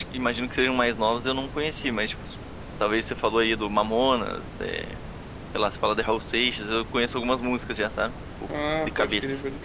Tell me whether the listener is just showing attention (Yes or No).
No